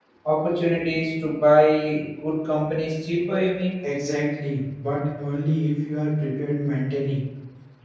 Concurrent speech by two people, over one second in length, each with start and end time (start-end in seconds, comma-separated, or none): none